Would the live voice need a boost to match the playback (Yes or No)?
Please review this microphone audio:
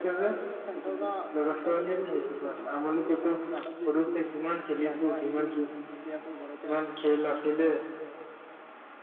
Yes